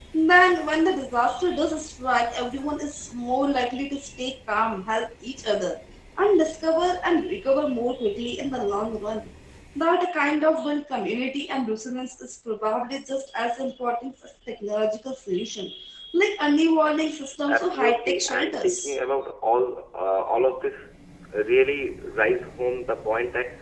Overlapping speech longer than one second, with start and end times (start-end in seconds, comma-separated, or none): 17.5-19.0